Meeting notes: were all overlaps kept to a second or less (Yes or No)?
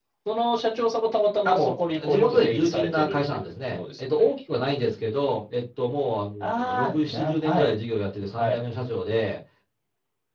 No